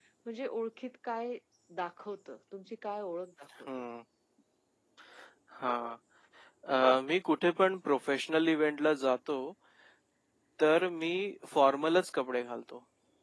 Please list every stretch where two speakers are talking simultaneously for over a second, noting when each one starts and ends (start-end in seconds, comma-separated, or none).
none